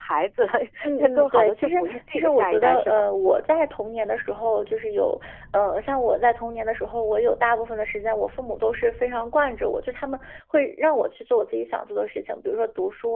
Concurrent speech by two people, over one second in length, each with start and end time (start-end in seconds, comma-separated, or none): 1.0-3.0